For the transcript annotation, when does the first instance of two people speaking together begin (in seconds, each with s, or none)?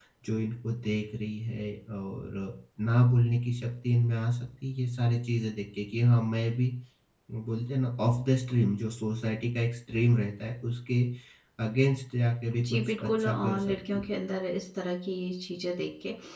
12.6 s